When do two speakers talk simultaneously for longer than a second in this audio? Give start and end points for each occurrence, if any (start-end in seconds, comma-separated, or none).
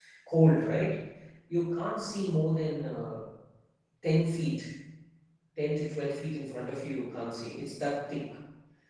none